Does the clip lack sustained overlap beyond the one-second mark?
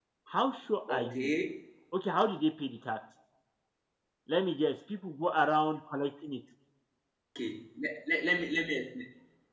Yes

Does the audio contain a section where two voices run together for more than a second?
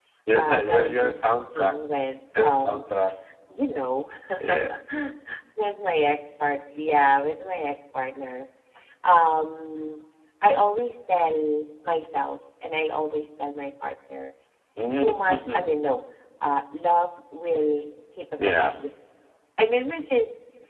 Yes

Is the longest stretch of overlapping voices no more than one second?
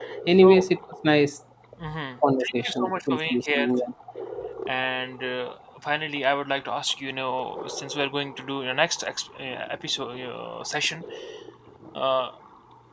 No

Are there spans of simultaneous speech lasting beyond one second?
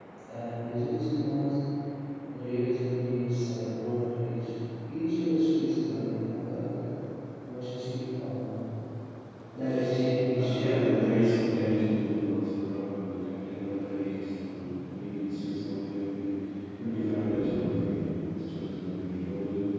Yes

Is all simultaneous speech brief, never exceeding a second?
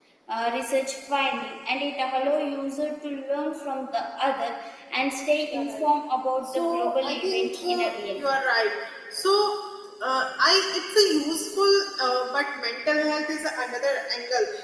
No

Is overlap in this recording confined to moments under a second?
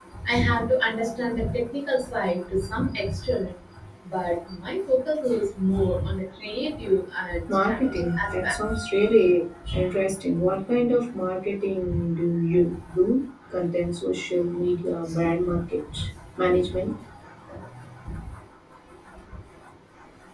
No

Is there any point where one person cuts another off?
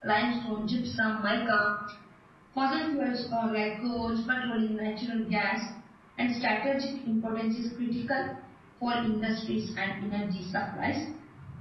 No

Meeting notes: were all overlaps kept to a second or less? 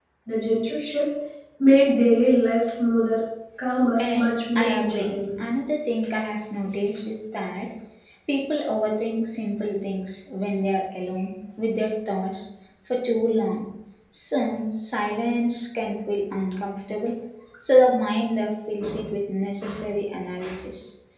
No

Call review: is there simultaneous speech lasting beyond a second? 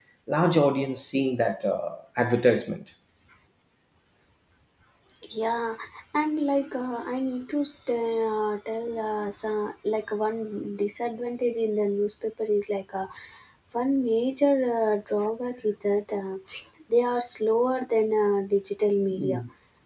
No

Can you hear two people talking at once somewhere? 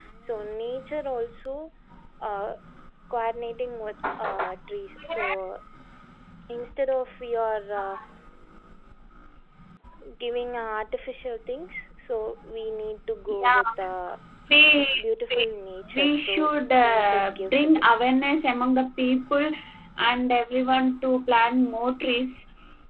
Yes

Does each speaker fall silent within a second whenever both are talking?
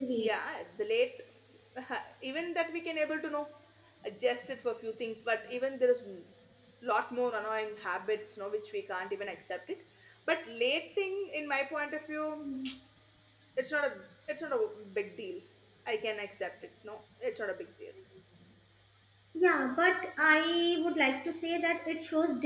Yes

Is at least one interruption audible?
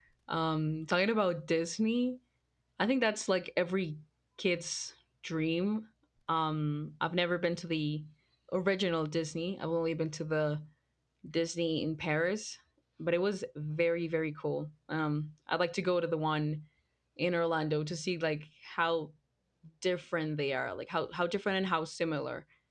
No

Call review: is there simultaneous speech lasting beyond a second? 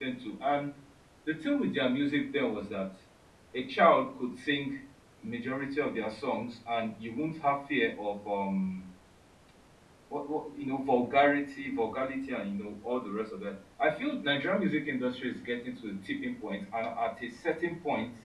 No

